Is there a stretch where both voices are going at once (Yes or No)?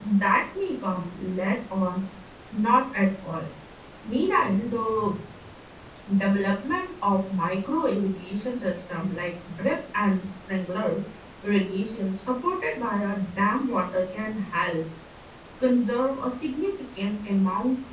No